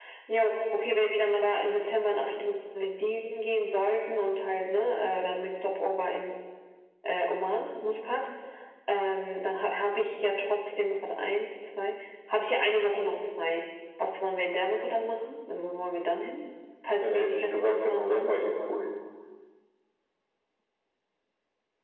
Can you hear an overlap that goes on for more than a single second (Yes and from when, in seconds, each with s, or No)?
Yes, from 17.0 s